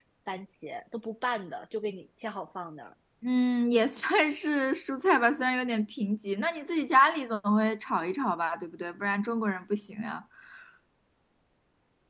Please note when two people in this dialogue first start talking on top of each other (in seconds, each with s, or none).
none